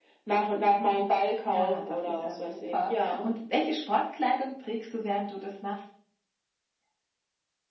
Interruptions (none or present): present